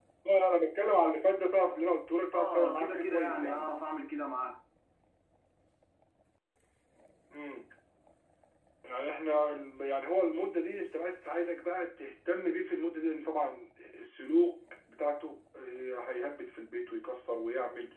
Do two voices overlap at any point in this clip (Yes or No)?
Yes